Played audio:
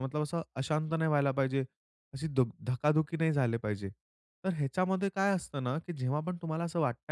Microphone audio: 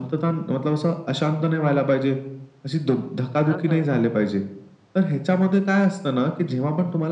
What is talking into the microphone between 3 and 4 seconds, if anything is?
both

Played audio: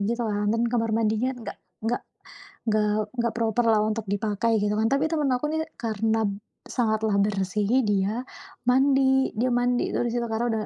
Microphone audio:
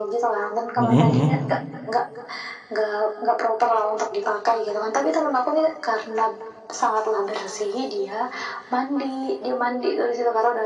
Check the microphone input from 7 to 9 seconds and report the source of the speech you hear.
echo only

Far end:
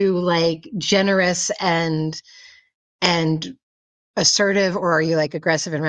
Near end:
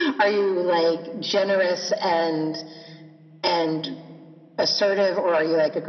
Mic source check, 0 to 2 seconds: echo only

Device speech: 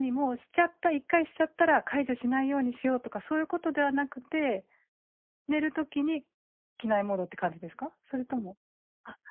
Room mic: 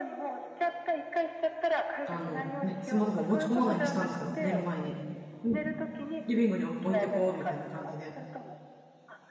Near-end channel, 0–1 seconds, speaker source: echo only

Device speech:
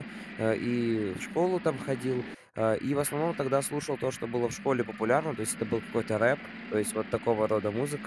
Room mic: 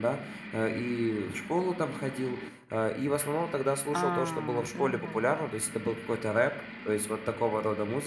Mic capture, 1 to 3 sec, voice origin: echo only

